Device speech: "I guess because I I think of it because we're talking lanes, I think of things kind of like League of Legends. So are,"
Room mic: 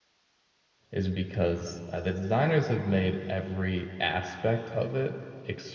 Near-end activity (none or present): present